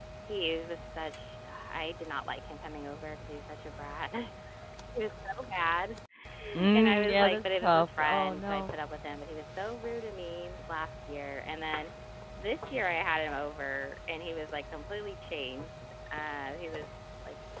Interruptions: present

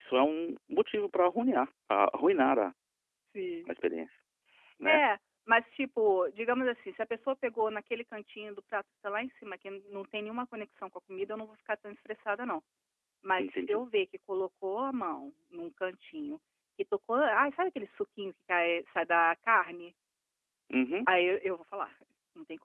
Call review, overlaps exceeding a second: none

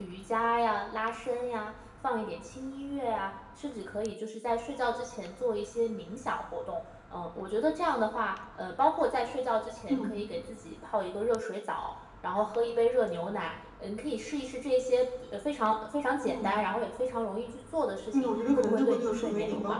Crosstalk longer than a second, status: present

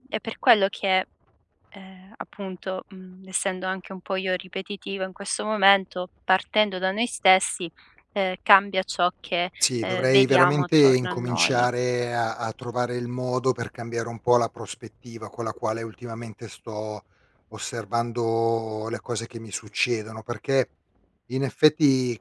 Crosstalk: present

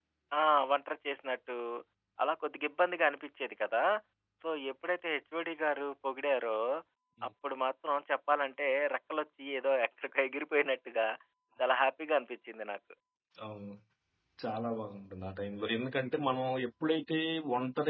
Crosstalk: none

